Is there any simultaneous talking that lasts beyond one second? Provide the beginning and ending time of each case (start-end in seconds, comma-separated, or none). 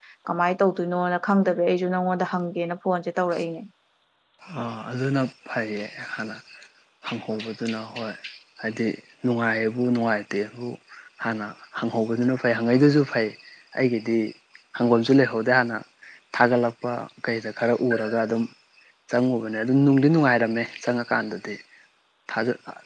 none